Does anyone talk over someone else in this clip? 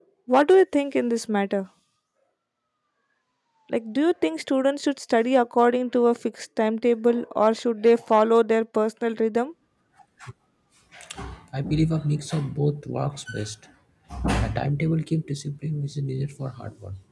No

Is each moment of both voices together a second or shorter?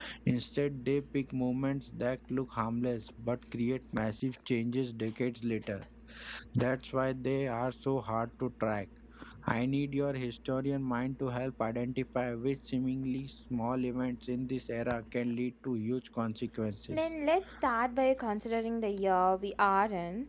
Yes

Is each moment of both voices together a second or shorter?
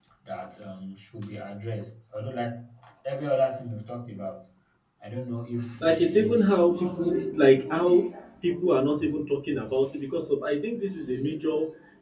No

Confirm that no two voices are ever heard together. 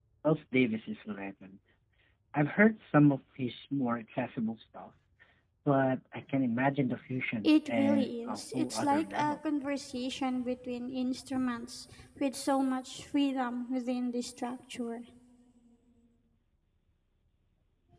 No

